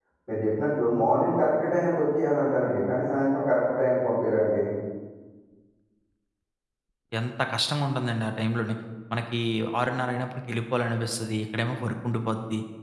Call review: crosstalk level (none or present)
none